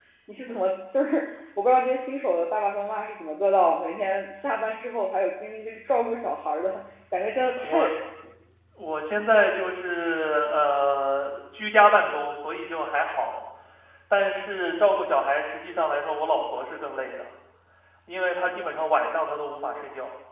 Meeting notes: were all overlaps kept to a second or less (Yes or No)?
Yes